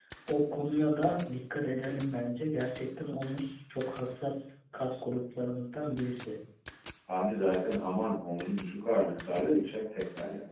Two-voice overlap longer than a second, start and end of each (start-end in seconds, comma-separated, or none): none